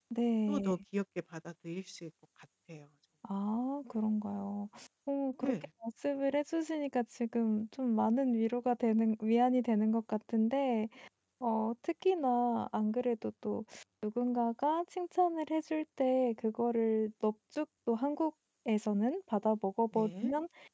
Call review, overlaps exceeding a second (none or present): none